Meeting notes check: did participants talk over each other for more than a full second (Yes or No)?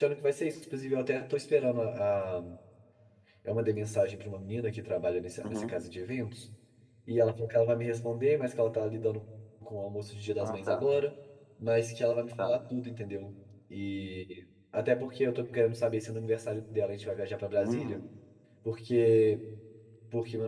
No